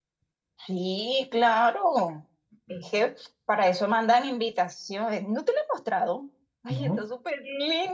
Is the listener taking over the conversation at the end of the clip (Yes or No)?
No